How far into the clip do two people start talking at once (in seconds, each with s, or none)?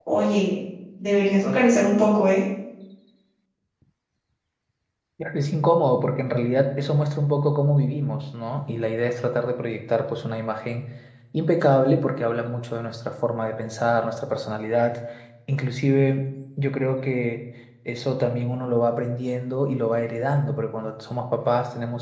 none